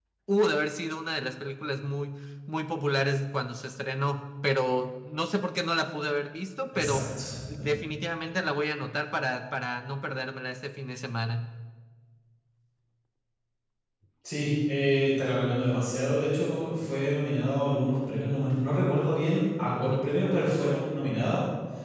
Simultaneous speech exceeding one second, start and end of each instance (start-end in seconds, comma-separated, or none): none